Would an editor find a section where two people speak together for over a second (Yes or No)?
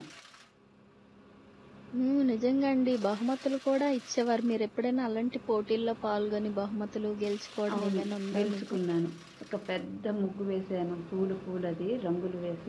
No